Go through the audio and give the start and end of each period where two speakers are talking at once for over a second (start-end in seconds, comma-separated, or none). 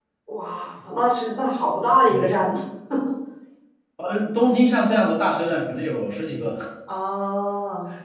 none